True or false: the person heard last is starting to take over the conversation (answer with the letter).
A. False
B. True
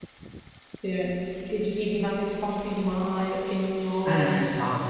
B